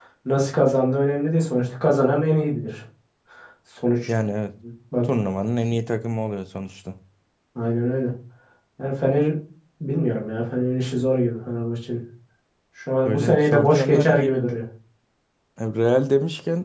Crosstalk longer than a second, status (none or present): present